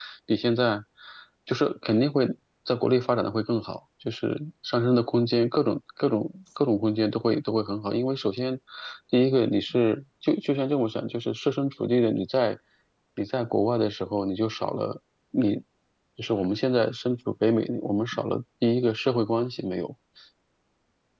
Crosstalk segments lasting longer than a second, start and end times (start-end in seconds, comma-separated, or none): none